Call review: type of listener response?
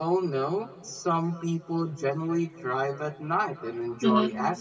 listening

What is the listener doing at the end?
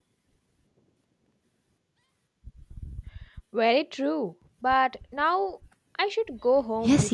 taking over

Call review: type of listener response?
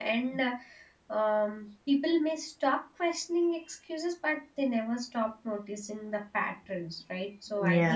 listening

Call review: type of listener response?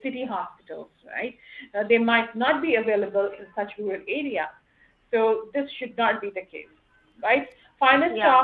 listening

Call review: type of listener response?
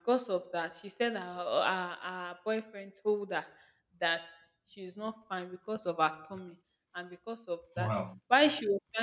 listening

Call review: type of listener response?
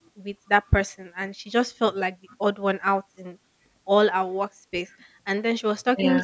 listening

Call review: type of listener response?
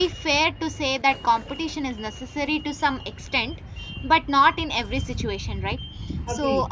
listening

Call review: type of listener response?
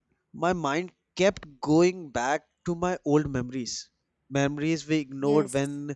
listening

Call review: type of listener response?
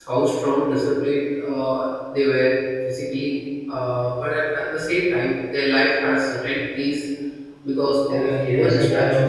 taking over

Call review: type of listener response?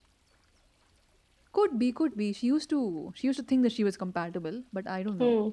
taking over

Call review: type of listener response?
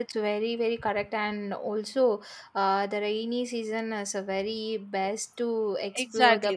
taking over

